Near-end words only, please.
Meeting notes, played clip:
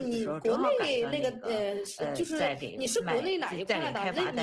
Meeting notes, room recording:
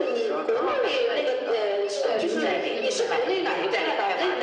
对。对，流流的那种感觉，对吧？

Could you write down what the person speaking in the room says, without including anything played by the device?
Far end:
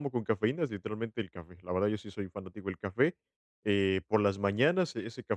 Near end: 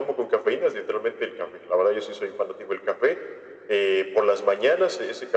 none

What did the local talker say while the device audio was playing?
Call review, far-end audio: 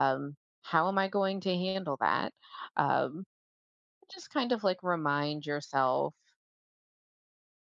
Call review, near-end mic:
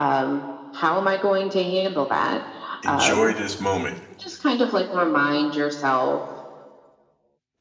enjoy this moment?

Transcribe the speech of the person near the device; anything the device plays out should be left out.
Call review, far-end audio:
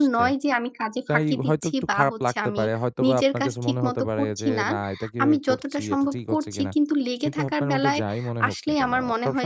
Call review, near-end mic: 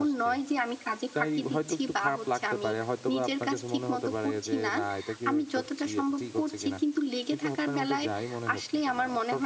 none

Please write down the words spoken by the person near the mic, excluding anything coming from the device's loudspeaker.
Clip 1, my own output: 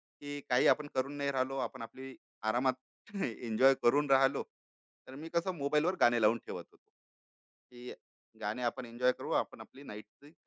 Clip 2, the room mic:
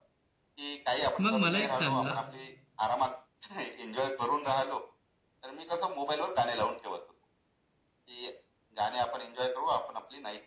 मग मला एक सांगा,

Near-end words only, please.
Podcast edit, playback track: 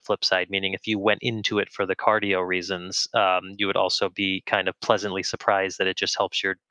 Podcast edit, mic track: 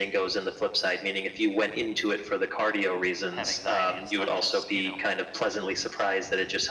have anxiety. It's not just you know

